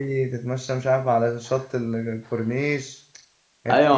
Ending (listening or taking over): taking over